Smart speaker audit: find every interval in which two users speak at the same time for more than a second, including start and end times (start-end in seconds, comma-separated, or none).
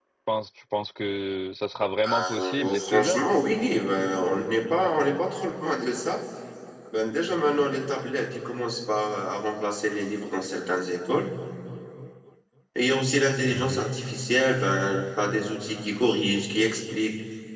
2.0-3.2